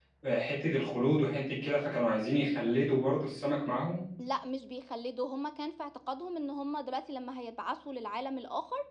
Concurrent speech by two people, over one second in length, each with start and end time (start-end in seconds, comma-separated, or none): none